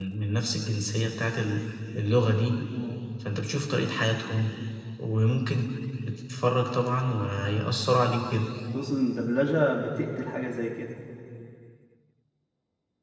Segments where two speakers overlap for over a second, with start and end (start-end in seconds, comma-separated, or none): none